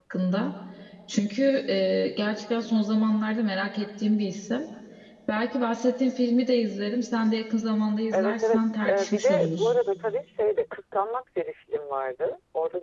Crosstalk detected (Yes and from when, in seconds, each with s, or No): Yes, from 8.1 s